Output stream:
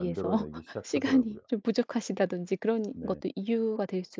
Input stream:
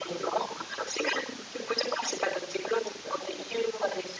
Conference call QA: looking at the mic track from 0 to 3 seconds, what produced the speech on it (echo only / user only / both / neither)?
echo only